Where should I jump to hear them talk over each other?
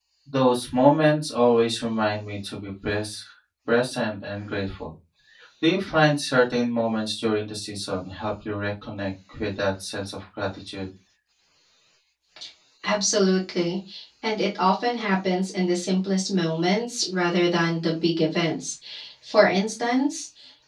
none

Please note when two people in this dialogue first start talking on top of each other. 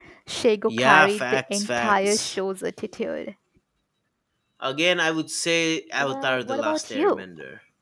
1 s

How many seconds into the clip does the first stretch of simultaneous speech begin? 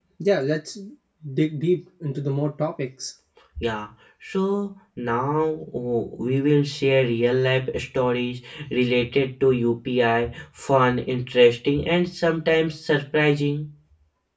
none

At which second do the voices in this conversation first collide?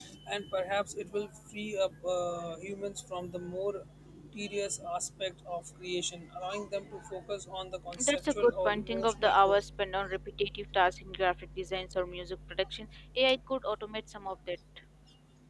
8 s

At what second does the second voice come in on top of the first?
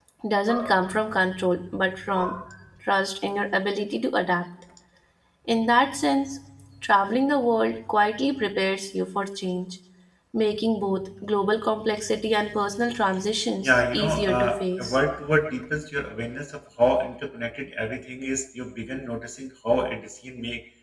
14 s

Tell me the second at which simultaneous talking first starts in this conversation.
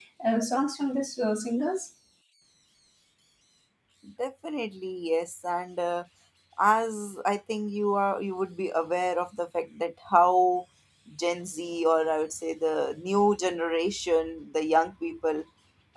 none

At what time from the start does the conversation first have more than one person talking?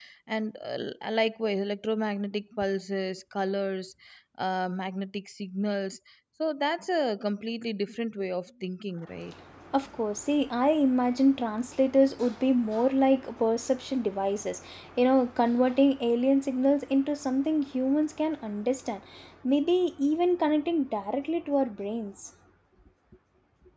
none

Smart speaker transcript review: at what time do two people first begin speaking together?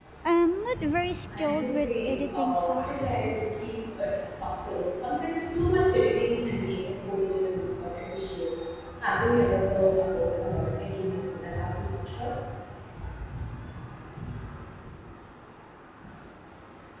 1 s

